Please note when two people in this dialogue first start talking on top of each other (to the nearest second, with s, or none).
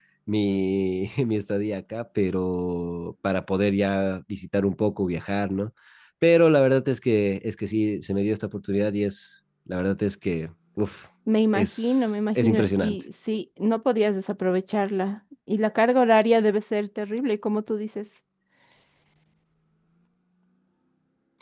12 s